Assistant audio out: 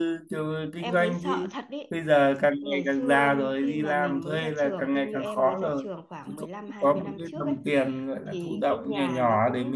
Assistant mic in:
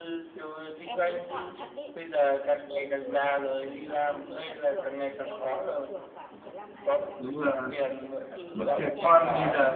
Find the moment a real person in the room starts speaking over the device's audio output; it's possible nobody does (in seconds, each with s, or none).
7.2 s